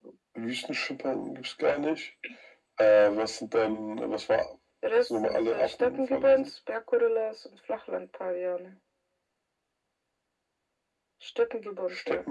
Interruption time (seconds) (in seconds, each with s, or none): 5.0 s